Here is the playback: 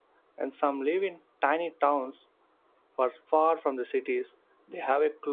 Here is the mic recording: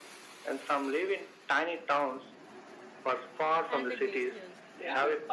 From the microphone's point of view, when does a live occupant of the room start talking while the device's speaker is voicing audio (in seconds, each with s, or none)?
3.7 s